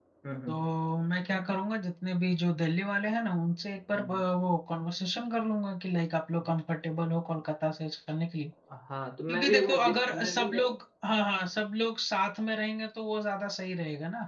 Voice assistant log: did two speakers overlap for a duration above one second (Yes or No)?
Yes